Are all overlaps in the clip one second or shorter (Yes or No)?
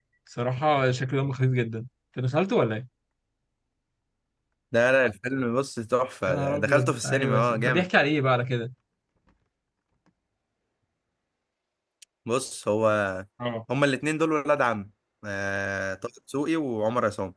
No